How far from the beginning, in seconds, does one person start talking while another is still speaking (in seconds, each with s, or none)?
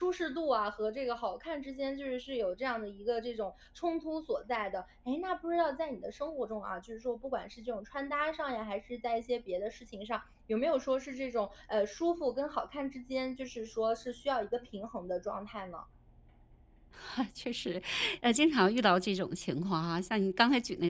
none